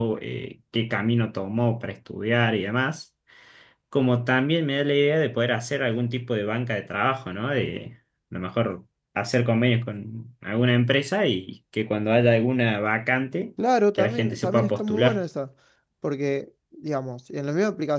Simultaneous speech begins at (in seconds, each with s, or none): 13.9 s